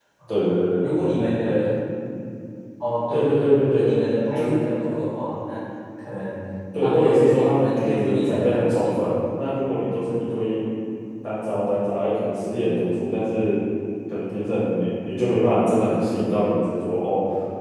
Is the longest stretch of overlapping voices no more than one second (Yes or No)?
No